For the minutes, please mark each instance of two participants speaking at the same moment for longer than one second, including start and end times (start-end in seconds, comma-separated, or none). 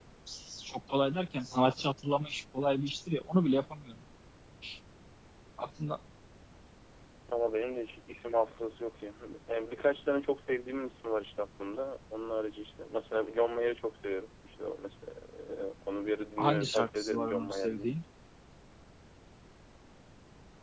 16.4-17.9